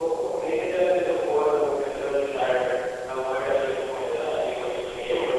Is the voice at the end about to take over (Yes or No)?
Yes